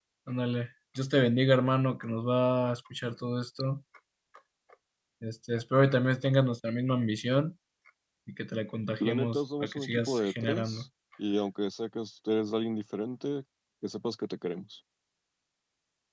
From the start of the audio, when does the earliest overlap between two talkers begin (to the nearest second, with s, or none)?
9 s